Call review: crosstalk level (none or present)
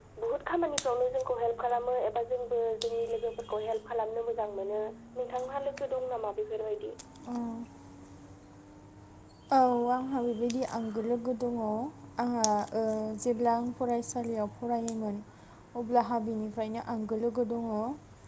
none